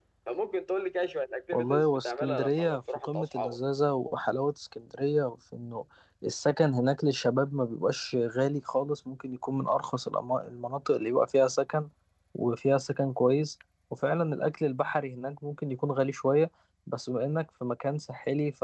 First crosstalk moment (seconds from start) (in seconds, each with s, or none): 1.5 s